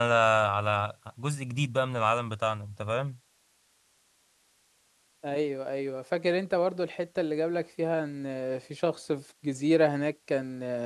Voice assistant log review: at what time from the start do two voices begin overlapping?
none

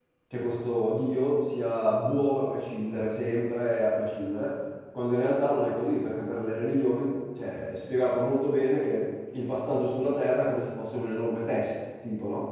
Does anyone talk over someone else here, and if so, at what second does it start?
none

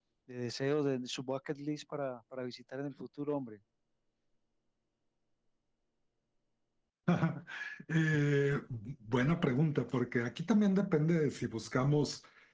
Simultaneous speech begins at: none

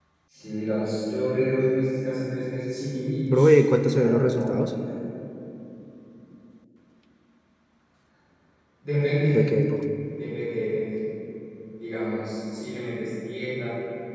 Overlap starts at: 3.3 s

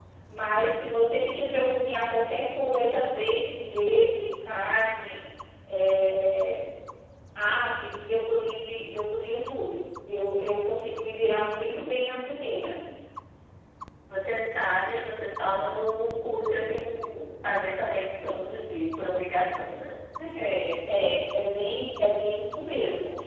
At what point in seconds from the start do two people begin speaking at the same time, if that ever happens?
none

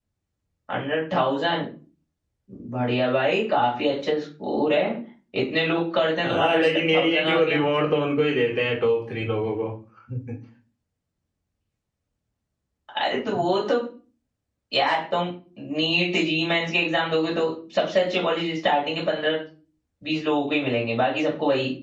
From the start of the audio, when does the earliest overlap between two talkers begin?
6.2 s

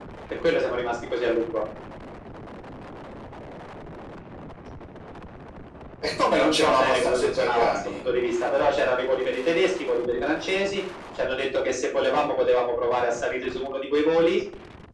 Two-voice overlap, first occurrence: 6.3 s

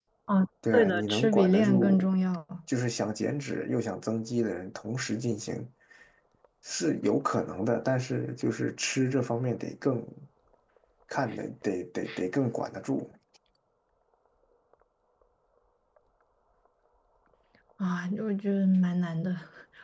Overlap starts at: 0.7 s

